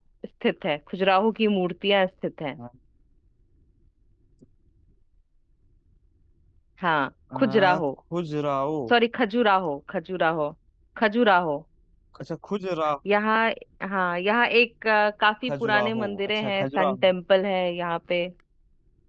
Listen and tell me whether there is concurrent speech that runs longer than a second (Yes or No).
Yes